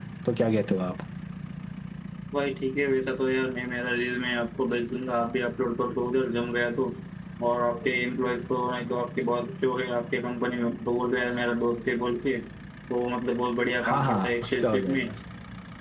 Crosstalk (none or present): present